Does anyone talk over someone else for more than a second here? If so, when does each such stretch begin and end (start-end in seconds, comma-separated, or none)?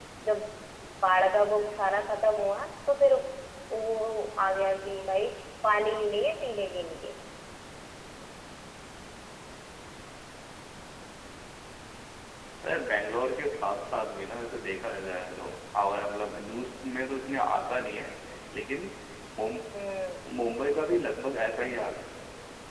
none